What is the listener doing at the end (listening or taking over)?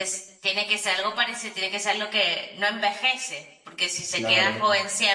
listening